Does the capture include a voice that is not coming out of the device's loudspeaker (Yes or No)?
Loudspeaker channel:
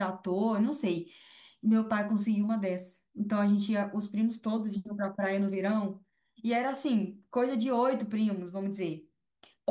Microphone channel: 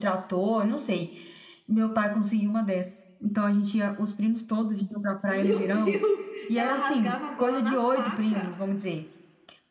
Yes